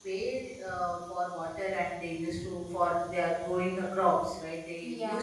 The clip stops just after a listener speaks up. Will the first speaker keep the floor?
Yes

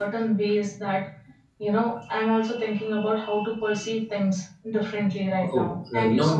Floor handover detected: Yes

